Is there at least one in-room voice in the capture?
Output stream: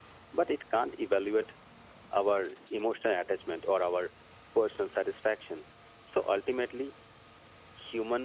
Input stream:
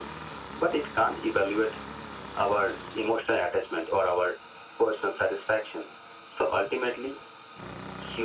No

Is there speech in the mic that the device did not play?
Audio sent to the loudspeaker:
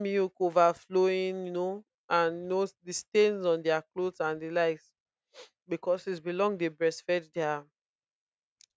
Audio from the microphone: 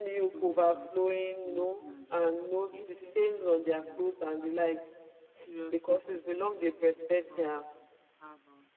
Yes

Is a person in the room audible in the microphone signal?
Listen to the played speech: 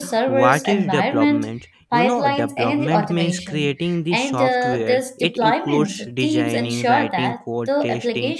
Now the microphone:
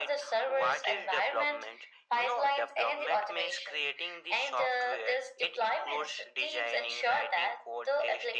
No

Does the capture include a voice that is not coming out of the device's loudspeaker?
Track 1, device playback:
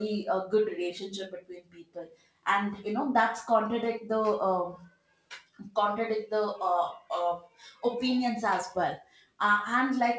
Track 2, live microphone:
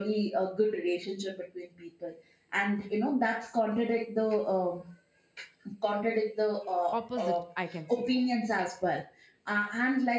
Yes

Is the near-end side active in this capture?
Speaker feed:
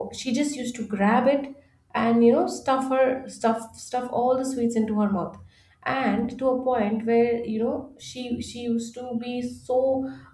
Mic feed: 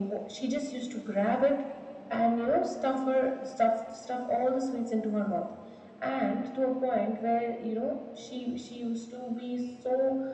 No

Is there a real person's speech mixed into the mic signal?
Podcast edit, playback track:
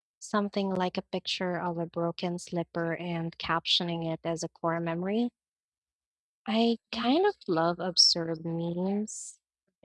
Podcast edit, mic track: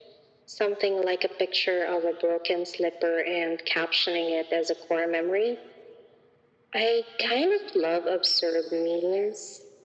No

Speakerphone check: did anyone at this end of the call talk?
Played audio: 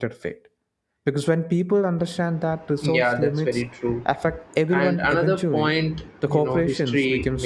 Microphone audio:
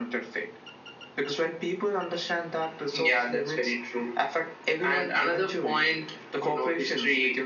No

